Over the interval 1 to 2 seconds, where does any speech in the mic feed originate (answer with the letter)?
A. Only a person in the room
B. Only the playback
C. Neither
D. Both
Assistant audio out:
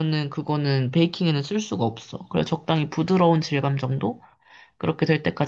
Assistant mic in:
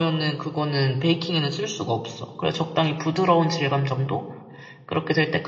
B